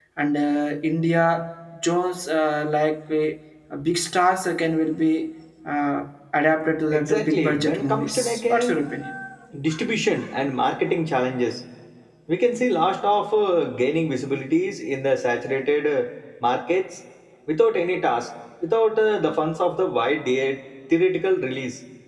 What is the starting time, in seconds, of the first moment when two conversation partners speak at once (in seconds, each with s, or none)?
6.9 s